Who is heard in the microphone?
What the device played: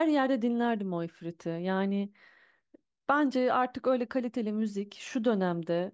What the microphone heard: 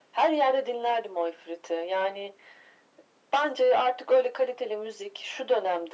echo only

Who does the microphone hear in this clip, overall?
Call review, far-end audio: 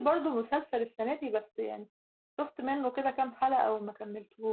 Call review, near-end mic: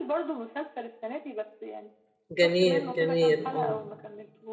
both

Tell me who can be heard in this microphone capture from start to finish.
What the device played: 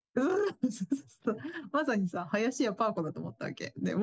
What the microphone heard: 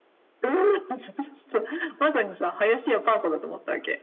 echo only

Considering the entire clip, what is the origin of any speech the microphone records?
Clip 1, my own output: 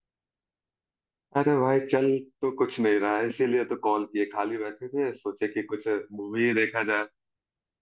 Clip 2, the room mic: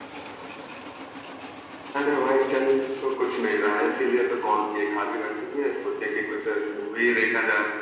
echo only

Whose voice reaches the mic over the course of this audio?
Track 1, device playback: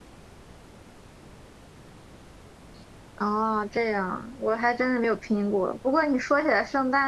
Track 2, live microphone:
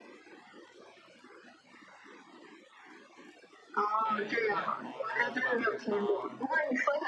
both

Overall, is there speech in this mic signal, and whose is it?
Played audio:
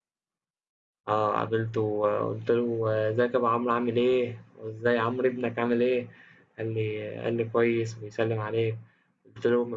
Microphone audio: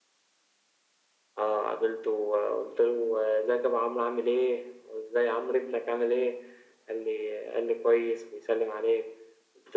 echo only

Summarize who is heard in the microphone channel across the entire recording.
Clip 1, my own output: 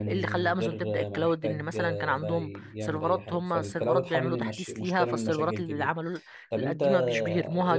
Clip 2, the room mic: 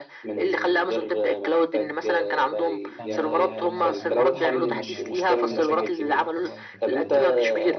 both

